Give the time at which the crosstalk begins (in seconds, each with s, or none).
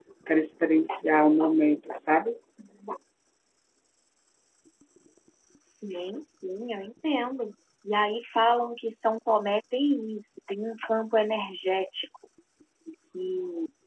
none